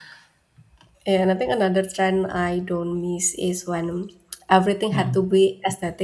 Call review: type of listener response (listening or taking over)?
listening